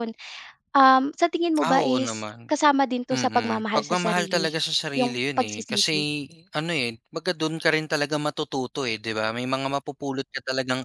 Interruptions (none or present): present